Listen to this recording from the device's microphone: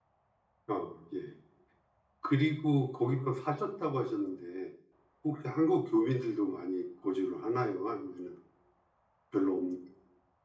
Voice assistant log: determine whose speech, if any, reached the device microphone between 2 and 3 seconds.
user only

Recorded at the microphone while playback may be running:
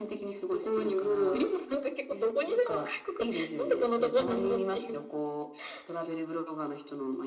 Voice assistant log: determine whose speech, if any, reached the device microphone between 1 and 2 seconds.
echo only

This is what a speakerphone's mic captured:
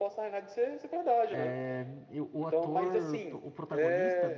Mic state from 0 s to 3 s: both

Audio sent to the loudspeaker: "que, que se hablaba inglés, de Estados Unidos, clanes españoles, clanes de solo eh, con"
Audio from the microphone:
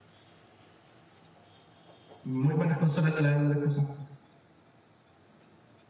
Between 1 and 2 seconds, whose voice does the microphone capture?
neither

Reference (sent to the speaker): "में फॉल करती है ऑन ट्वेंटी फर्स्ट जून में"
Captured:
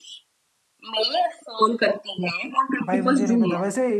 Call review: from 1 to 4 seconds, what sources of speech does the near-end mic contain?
both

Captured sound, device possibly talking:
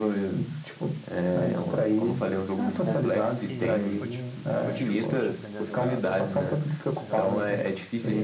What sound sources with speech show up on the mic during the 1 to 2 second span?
echo only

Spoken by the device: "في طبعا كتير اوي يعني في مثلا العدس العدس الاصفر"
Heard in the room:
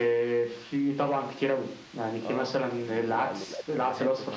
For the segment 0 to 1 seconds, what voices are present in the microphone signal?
echo only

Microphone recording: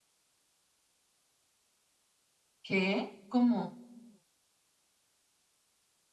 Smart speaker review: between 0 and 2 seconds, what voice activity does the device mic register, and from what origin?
neither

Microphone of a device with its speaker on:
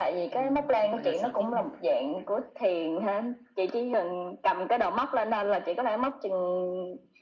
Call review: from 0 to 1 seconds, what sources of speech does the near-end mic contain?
both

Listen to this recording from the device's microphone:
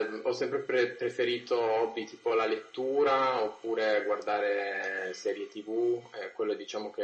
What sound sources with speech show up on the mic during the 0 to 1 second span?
echo only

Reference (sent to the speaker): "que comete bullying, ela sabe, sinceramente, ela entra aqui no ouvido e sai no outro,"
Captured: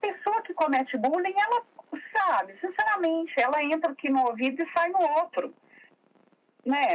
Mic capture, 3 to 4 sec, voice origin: echo only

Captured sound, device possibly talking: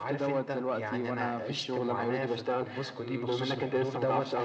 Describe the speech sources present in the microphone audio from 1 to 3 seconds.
both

